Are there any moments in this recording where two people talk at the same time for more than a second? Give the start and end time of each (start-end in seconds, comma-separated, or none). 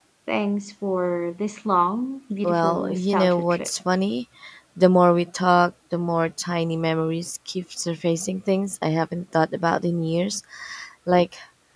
2.4-3.7